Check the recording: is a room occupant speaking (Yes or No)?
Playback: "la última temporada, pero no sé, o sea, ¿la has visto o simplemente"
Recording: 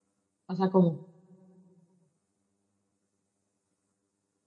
Yes